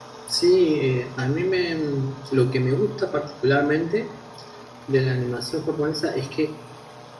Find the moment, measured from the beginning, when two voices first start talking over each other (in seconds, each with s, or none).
none